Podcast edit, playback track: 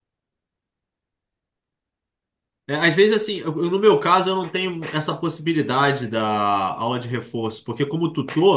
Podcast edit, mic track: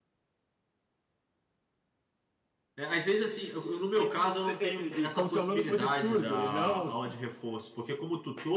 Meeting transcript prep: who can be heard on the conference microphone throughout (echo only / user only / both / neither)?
both